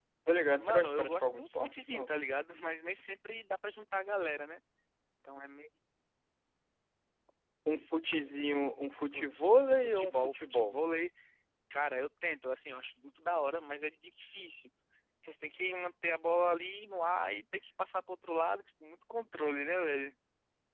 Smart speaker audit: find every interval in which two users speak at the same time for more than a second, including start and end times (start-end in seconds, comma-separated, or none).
0.6-2.1, 9.1-10.8